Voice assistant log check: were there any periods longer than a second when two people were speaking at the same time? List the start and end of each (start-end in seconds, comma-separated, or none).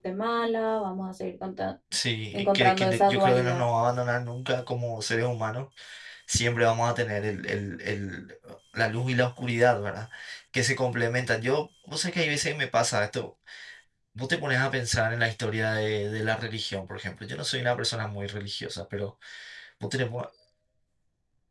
2.3-3.6